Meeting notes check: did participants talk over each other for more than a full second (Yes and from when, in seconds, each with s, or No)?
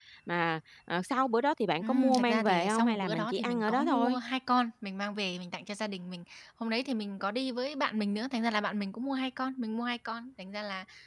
Yes, from 1.8 s